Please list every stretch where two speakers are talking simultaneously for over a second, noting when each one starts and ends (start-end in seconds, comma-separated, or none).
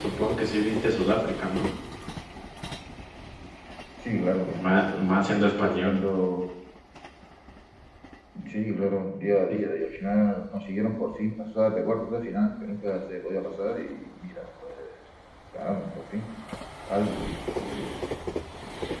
4.6-6.0